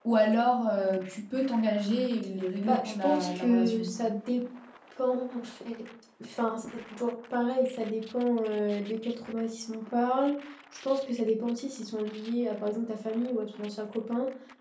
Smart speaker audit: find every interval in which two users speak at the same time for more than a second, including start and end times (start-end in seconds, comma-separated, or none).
2.7-3.9